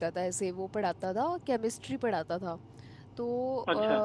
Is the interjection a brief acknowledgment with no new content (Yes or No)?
Yes